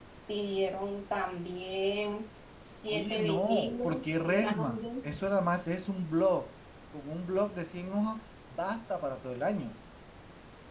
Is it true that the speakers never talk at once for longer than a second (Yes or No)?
No